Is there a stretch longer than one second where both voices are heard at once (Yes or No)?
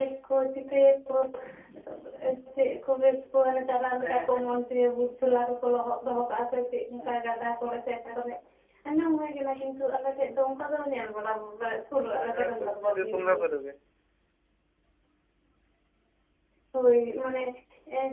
Yes